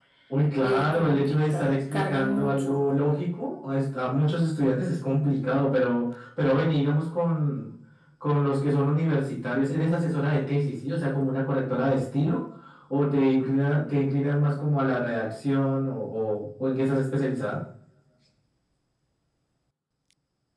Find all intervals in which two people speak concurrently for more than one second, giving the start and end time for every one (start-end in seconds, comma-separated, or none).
0.6-2.8